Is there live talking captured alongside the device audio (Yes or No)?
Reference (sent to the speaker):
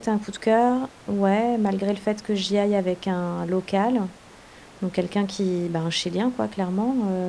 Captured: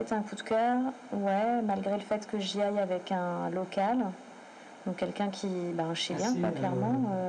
Yes